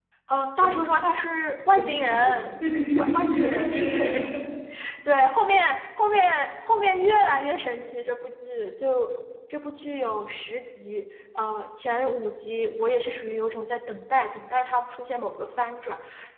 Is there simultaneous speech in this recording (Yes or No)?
Yes